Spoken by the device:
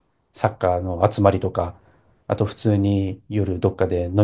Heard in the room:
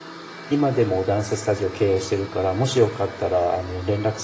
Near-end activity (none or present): present